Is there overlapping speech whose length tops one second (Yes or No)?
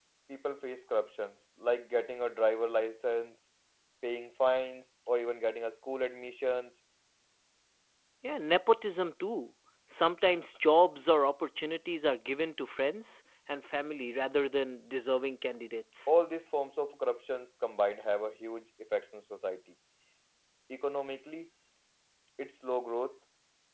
No